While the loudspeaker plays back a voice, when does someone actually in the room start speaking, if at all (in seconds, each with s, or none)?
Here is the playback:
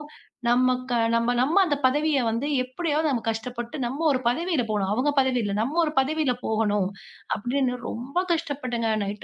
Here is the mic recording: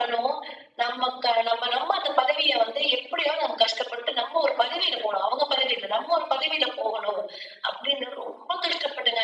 none